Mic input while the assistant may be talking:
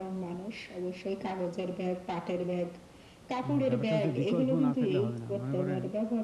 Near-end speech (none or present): present